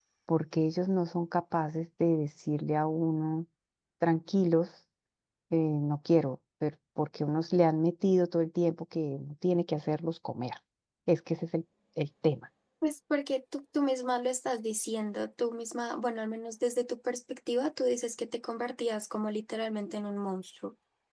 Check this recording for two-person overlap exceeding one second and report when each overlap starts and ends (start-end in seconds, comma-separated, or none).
none